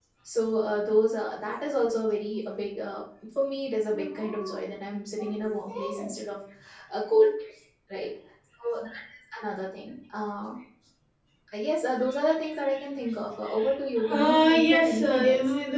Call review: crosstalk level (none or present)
present